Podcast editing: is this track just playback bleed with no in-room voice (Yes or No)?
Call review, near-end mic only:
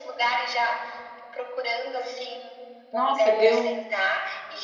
No